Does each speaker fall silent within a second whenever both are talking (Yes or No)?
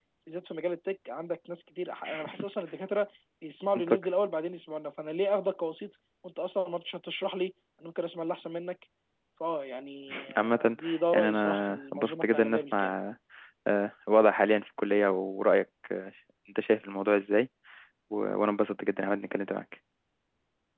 No